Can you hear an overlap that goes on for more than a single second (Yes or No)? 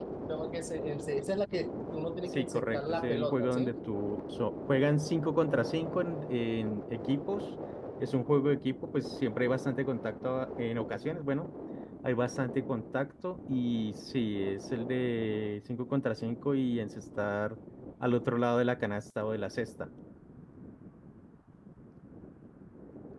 Yes